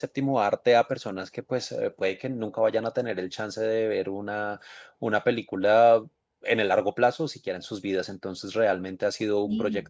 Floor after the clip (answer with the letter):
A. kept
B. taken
A